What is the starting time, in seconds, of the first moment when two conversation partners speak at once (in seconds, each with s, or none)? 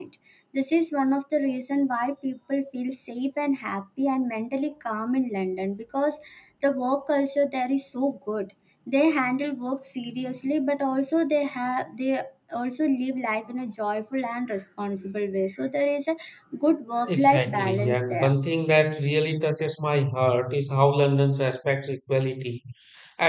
17.1 s